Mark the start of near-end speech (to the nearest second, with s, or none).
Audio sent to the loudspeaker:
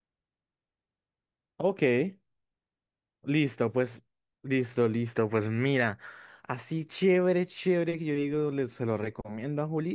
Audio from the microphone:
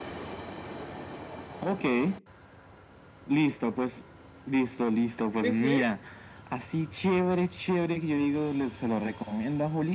5 s